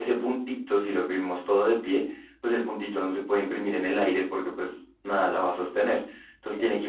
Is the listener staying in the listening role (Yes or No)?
Yes